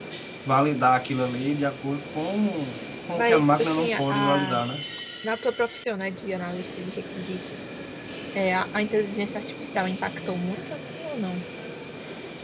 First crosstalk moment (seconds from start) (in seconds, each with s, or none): 3.2 s